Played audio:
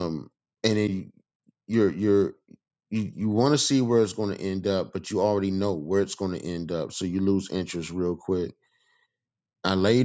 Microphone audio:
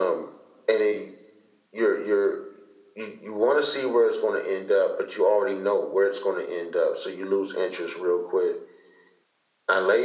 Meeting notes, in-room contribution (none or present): none